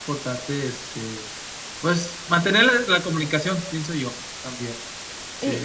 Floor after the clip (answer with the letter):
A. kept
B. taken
B